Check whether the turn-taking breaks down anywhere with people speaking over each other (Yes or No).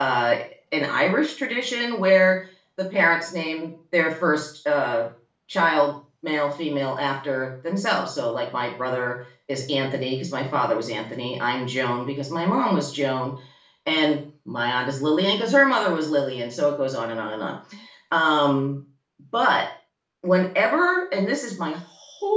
No